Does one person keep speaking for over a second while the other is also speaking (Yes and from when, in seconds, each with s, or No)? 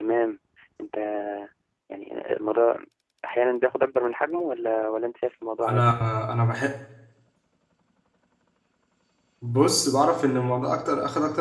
No